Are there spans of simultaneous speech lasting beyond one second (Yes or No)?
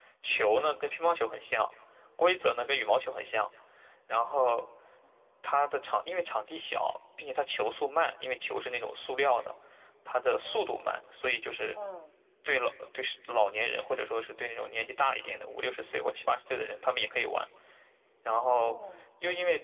No